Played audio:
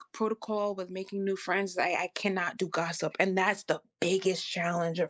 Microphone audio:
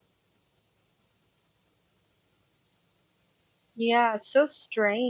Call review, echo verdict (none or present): none